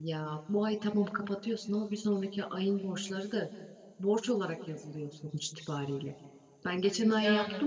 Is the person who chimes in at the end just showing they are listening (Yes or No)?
Yes